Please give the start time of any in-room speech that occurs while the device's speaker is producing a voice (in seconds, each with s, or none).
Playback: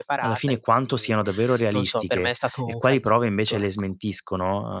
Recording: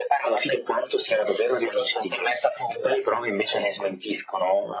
none